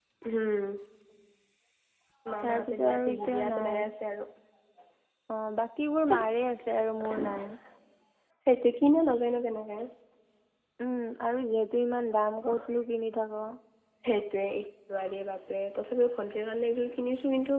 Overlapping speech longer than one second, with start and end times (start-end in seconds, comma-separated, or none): 2.4-3.9